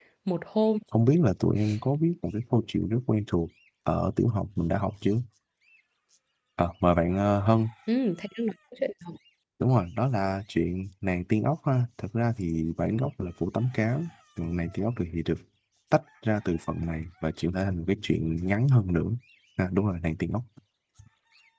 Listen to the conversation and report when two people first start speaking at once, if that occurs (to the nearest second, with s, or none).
none